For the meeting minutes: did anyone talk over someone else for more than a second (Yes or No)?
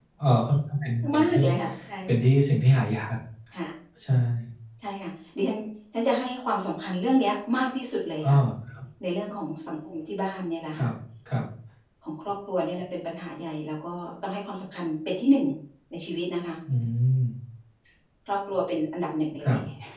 No